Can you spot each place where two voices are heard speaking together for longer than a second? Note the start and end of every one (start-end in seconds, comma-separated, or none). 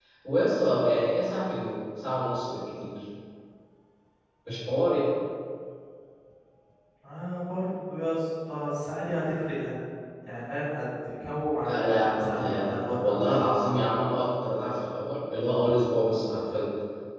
11.7-13.2